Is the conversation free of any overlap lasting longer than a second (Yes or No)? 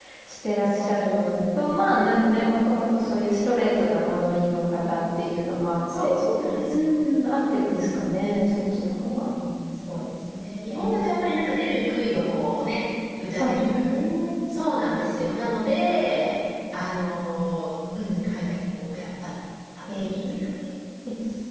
No